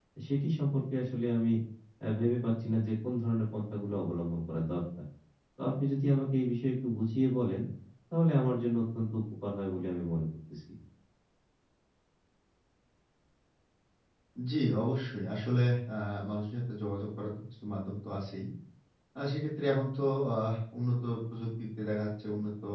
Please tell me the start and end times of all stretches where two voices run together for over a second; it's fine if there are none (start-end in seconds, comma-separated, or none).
none